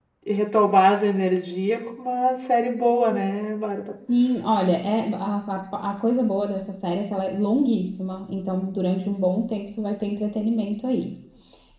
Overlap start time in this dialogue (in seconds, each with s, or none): none